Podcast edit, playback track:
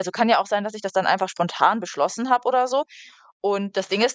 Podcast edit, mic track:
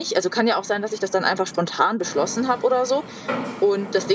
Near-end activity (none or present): none